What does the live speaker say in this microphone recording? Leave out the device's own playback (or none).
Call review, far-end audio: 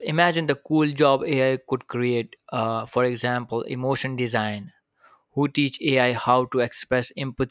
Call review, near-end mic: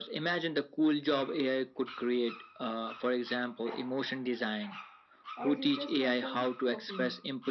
or just just nostalgic talking?